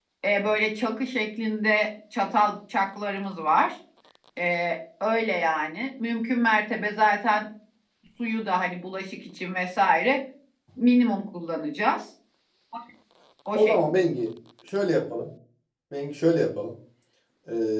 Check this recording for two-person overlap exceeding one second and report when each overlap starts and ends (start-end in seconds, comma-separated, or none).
none